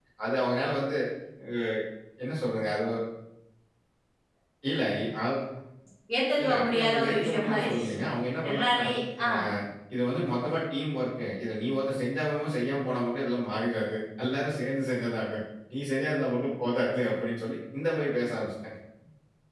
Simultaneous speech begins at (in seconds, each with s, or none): 6.4 s